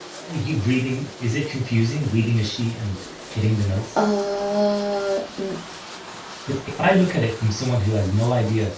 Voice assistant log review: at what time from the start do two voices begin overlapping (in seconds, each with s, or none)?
none